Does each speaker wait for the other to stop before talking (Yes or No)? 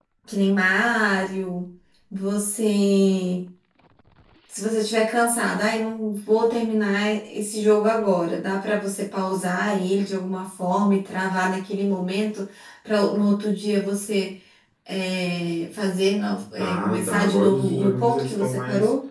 No